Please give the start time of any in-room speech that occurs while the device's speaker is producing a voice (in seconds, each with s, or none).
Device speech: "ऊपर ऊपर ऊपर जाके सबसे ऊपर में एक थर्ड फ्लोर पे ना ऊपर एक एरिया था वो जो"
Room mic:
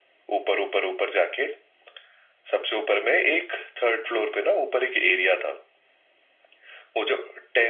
none